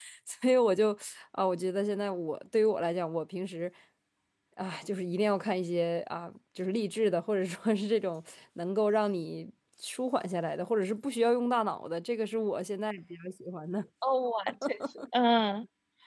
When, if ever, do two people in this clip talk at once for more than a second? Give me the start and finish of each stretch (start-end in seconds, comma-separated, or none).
none